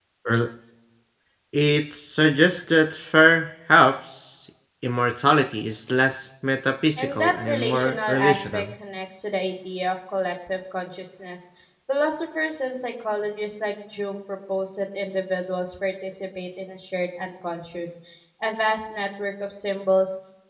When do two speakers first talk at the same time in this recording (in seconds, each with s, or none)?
7.0 s